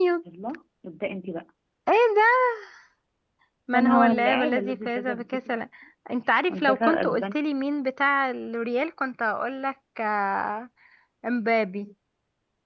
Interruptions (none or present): present